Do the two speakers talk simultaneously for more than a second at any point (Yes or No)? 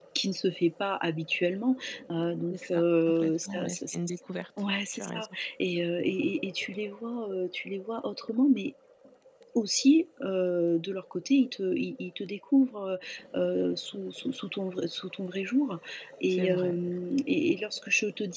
Yes